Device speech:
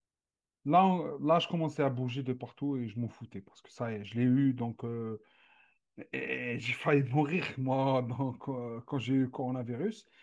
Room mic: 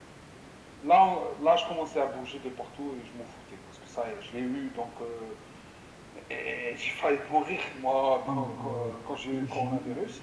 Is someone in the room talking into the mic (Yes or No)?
Yes